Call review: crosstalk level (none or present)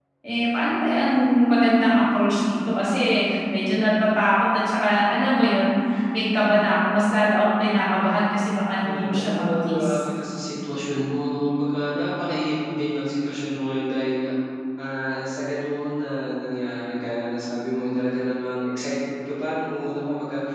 present